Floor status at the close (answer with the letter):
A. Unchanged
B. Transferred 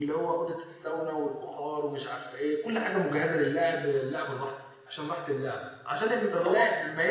A